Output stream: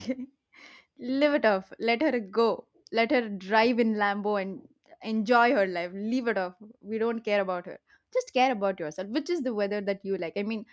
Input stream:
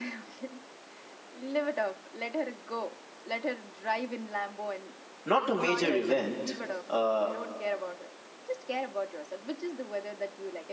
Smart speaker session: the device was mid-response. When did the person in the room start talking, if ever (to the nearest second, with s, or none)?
5 s